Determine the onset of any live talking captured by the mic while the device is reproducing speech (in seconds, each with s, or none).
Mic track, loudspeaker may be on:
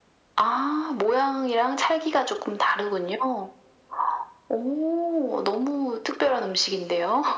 none